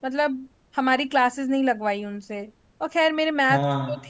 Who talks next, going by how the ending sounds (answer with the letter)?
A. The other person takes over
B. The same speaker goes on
B